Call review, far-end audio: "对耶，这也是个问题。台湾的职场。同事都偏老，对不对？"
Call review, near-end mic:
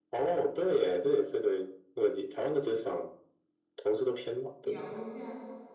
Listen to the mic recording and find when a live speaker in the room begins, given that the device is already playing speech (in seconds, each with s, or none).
4.6 s